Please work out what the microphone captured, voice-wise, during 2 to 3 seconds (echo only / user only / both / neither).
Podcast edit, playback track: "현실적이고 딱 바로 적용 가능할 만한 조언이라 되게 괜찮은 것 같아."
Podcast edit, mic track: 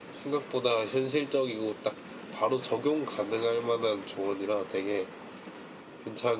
echo only